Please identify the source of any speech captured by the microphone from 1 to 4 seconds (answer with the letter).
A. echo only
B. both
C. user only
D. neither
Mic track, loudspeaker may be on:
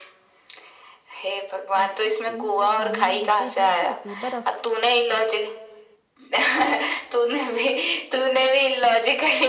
B